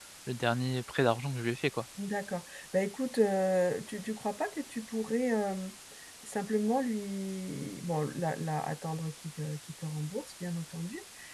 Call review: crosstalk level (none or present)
none